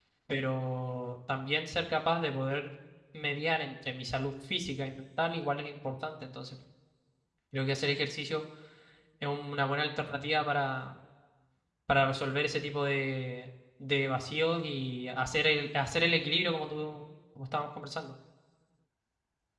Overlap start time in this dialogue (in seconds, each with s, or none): none